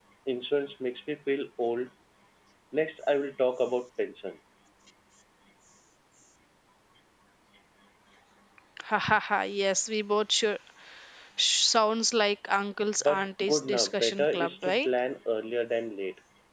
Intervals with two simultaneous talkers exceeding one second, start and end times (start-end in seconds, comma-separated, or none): 13.0-14.9